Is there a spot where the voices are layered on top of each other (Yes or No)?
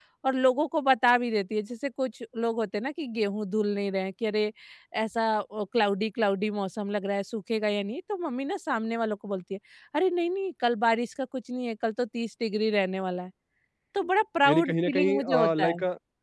Yes